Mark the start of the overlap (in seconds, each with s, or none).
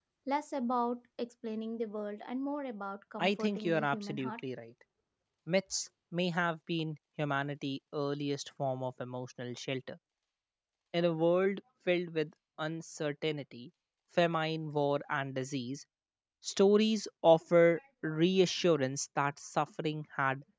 3.2 s